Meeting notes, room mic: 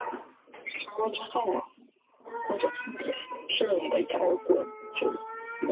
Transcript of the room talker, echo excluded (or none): none